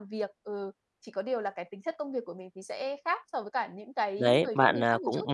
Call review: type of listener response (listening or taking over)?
taking over